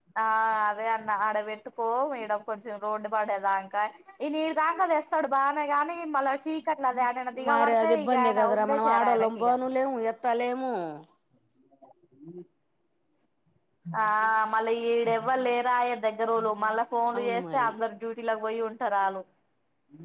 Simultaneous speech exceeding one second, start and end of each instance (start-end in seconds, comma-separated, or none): 7.5-9.5